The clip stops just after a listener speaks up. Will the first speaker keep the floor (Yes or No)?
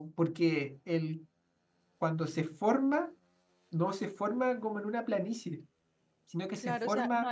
No